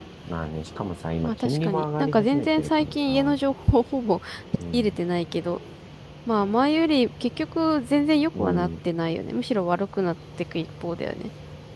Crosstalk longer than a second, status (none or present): present